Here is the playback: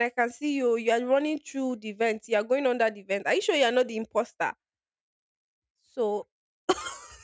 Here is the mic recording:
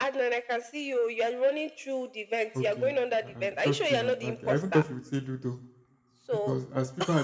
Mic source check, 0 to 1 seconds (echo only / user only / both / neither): echo only